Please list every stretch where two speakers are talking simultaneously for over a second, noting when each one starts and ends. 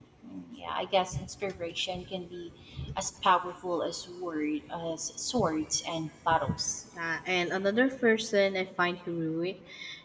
none

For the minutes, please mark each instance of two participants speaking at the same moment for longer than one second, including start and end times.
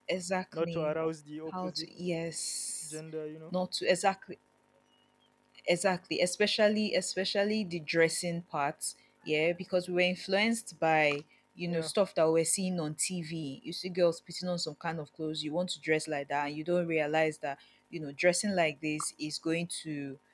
none

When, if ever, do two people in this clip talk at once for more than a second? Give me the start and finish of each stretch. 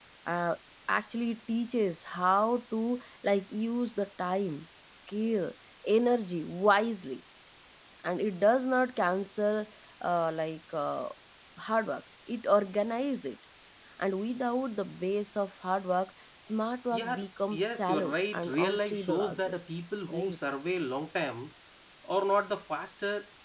17.6-19.5

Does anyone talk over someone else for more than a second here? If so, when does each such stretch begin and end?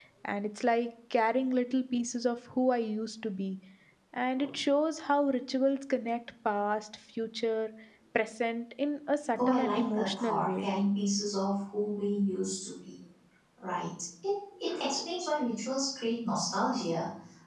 9.5-10.7

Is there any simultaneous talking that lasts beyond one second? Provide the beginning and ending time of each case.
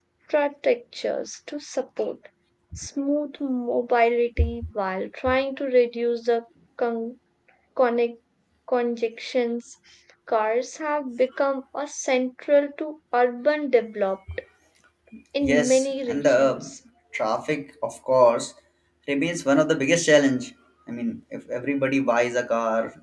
15.4-16.7

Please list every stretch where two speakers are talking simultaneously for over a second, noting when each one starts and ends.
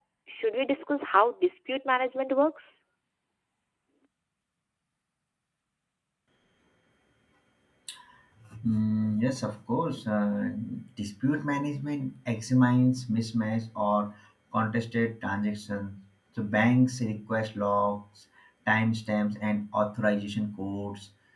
none

